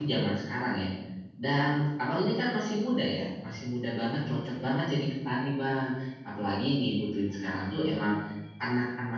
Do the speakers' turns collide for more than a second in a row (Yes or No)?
No